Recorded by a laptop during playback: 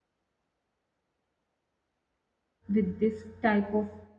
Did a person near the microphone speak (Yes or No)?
Yes